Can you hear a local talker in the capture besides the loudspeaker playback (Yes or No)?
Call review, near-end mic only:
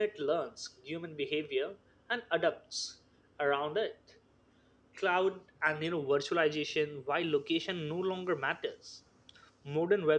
Yes